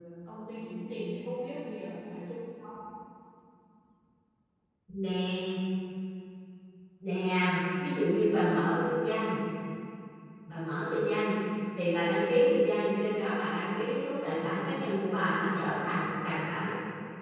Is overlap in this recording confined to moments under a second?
Yes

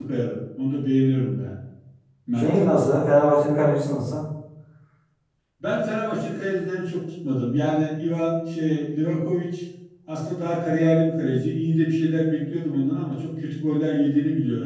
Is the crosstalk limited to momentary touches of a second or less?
Yes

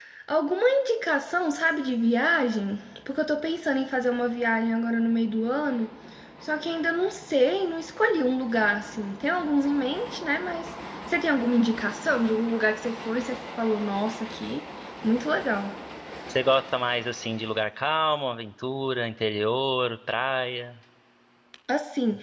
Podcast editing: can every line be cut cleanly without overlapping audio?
Yes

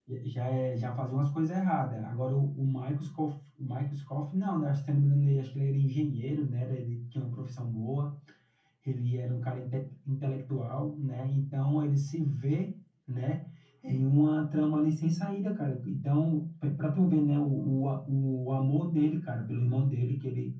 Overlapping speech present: No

